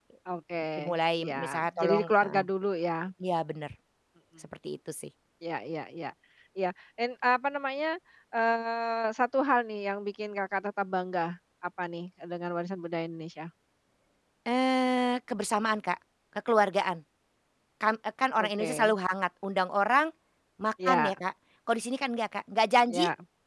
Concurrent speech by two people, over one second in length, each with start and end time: 0.8-2.4

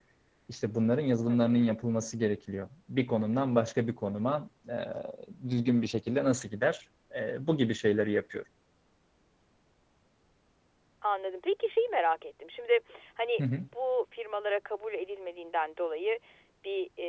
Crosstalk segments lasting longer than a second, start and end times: none

